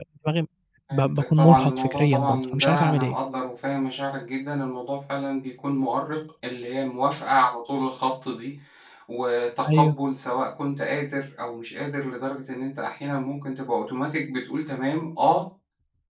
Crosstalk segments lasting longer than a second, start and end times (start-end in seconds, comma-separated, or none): 0.9-3.1